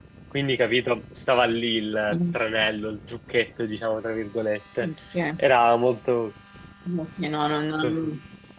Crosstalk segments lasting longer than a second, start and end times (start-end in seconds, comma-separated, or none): none